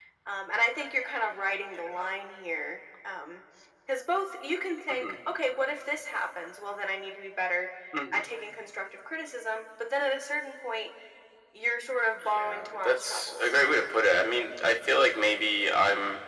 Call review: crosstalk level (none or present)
present